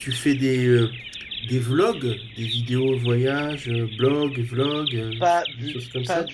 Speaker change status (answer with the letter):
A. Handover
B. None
A